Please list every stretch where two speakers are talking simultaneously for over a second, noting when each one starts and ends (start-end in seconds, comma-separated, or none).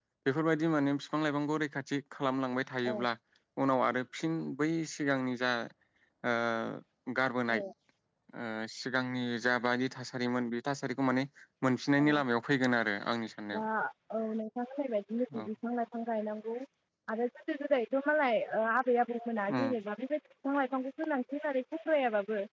none